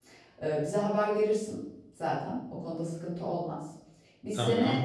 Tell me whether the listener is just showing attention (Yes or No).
Yes